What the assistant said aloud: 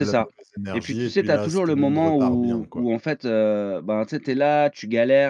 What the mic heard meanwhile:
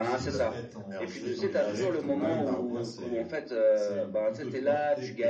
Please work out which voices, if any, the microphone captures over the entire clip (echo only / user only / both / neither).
both